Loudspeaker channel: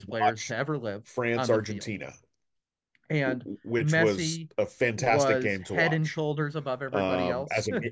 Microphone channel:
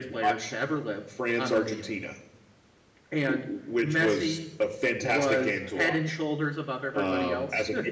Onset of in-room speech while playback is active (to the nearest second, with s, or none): none